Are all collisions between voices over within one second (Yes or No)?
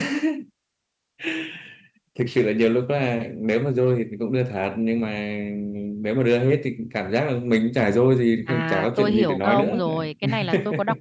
No